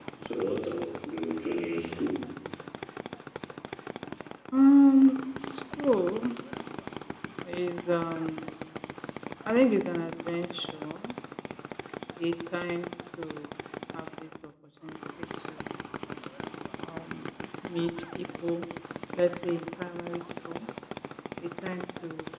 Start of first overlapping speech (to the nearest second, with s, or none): none